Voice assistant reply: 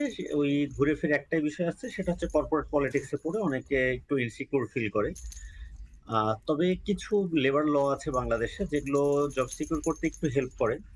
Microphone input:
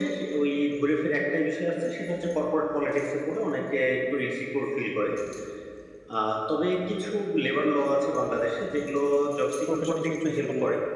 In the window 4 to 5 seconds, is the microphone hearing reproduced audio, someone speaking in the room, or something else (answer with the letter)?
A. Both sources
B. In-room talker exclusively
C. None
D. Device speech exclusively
D